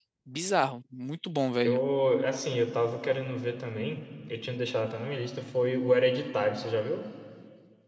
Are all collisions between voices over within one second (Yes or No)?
Yes